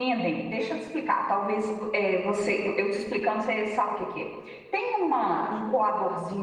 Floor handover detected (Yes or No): No